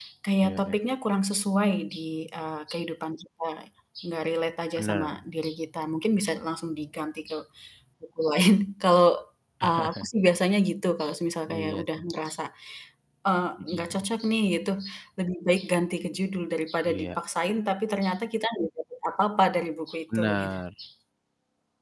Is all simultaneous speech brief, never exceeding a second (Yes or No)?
Yes